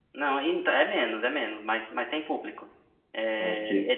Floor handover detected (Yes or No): No